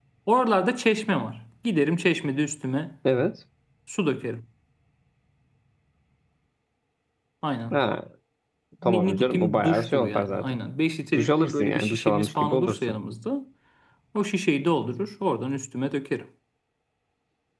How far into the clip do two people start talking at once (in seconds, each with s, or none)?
8.8 s